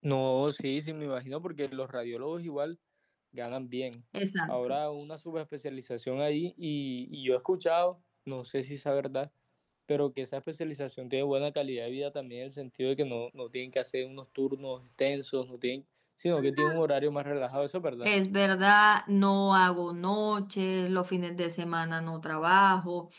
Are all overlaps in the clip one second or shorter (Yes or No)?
Yes